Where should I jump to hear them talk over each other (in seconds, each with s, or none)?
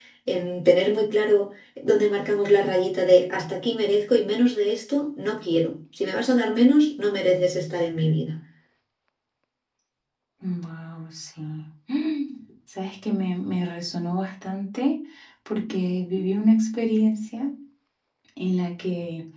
none